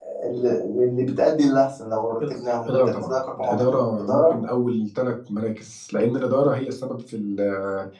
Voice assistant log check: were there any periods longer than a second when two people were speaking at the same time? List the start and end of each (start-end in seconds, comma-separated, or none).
2.6-4.4